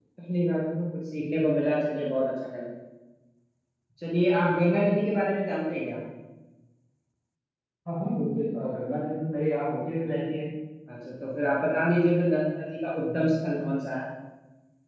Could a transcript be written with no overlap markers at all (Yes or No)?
Yes